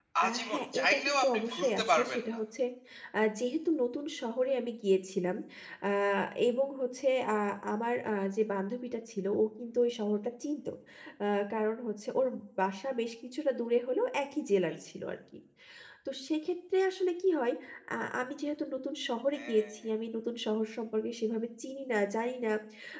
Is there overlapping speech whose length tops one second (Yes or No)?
Yes